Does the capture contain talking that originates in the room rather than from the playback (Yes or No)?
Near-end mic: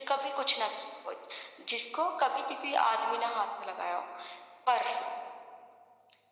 No